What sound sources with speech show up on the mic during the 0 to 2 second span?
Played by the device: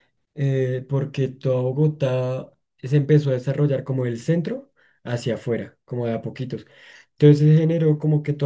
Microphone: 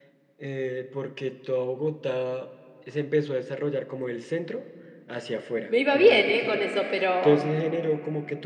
echo only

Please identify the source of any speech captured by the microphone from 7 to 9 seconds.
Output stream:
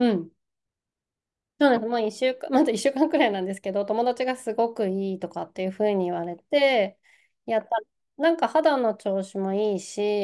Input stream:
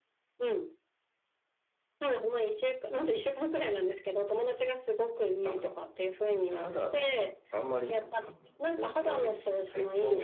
both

